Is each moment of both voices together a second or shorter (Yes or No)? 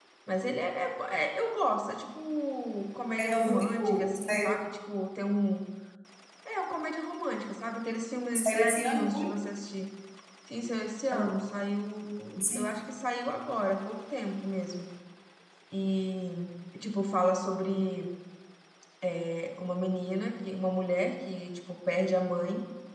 No